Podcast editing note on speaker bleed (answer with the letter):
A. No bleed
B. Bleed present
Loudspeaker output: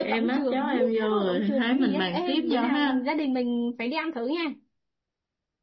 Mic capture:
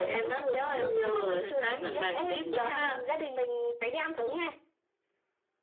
B